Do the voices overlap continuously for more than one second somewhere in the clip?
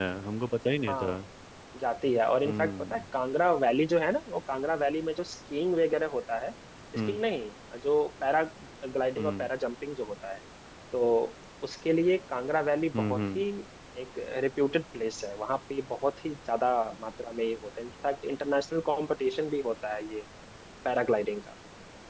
No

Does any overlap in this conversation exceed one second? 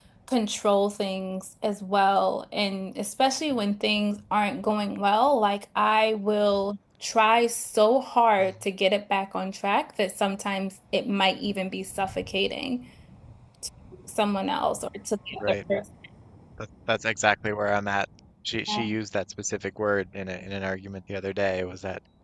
No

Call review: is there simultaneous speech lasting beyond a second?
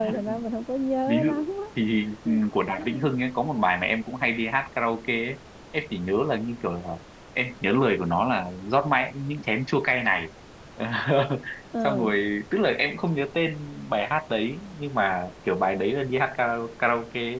No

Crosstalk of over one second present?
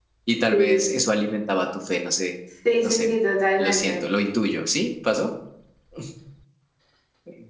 No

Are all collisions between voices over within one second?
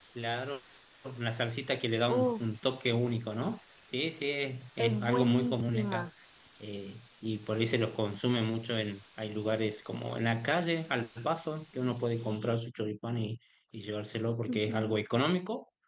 No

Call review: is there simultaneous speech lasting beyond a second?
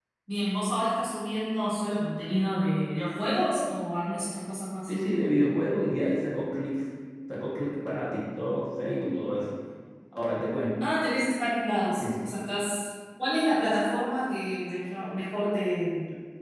No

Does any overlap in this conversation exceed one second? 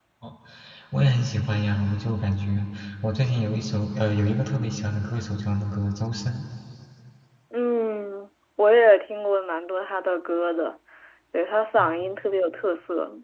No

